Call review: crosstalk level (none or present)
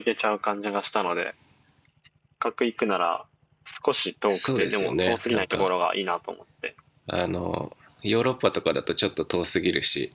present